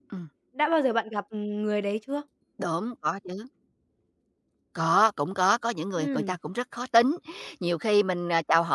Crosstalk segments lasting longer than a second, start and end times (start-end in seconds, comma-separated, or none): none